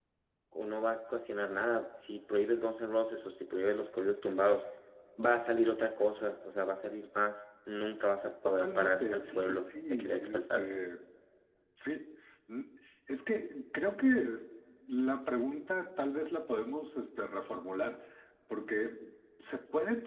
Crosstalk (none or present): present